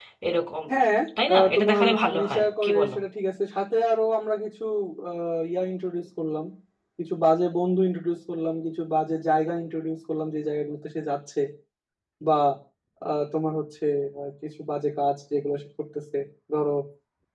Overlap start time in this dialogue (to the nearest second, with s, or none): 1 s